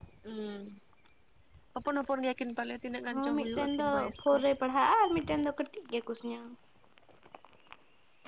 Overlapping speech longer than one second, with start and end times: 3.1-4.4

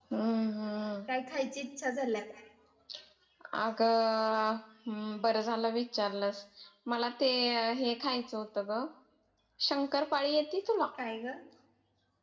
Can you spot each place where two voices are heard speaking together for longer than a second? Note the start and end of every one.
none

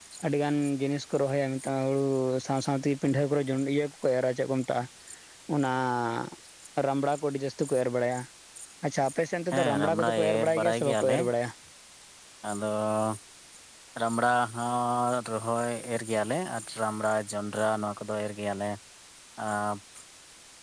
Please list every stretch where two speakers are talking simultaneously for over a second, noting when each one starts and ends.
9.5-11.2

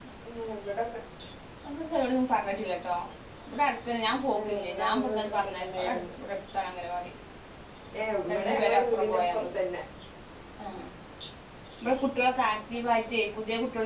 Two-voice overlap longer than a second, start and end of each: 4.4-6.0, 8.3-9.6

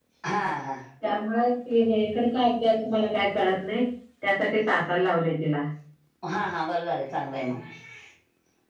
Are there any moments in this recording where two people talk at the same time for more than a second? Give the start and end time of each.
none

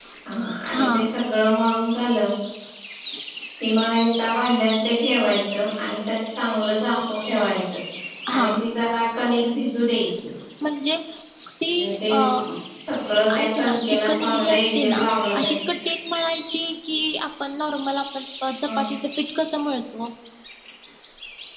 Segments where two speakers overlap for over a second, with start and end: 13.4-15.6

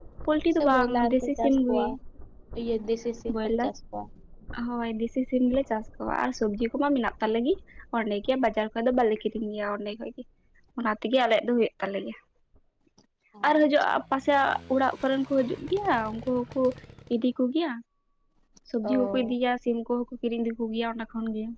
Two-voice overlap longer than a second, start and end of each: 0.6-1.8

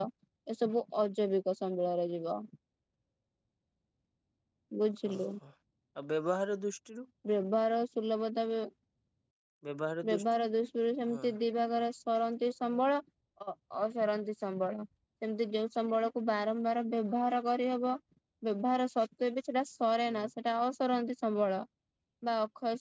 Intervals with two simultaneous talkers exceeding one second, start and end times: none

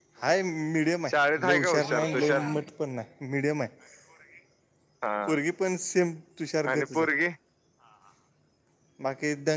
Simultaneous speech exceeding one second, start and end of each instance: 1.1-2.5

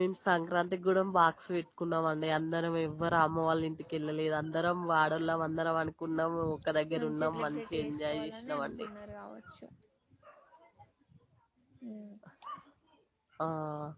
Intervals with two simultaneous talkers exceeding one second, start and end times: 7.0-8.7

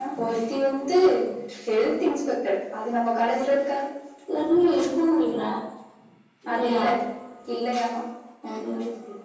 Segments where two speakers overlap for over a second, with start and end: none

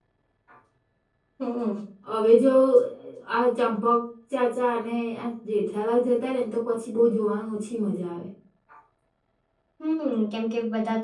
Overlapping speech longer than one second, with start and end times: none

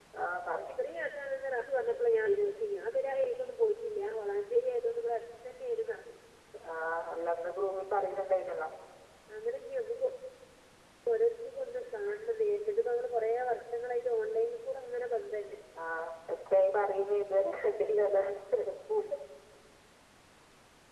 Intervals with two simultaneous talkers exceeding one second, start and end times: none

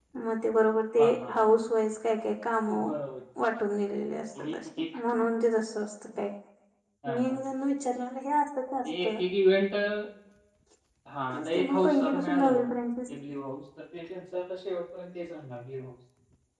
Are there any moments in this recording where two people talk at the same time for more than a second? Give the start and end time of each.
11.3-12.7

